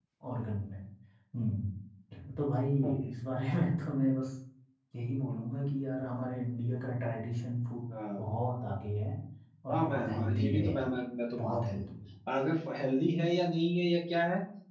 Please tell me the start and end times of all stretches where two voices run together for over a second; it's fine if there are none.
9.7-10.9

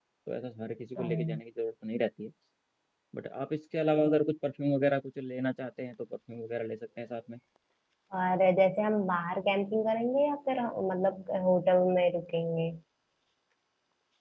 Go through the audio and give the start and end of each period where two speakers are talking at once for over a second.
none

